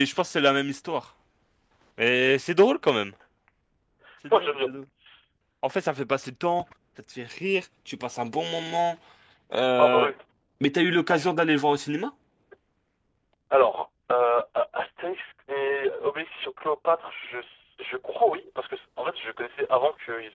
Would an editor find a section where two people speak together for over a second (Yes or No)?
No